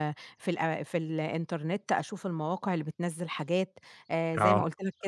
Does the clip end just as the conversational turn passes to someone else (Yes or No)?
No